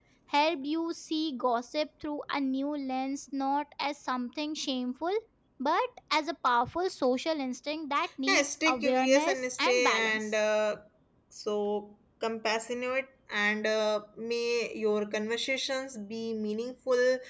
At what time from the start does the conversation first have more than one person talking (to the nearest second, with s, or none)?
8 s